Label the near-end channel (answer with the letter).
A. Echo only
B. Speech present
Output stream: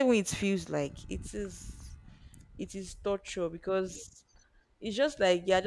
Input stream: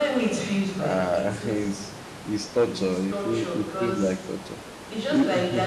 B